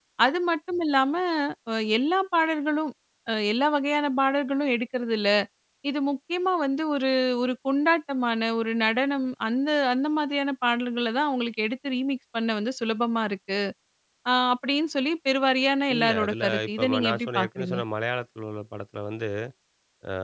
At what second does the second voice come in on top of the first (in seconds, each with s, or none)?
15.9 s